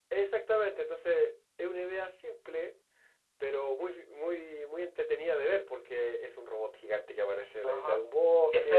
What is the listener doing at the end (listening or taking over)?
taking over